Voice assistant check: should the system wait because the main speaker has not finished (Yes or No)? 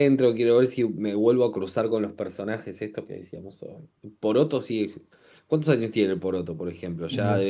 Yes